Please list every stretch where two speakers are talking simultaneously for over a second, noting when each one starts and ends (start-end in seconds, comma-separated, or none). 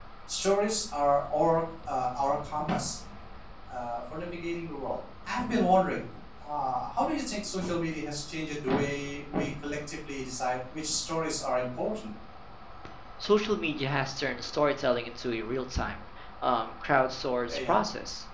none